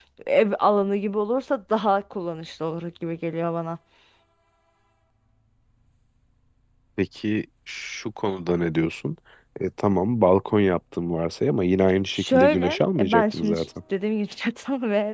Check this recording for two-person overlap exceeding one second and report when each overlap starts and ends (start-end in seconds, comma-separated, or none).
12.1-13.6